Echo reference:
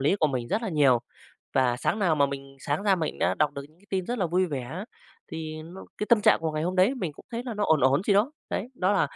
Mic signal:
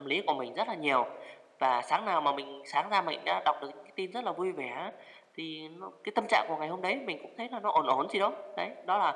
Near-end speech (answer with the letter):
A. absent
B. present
A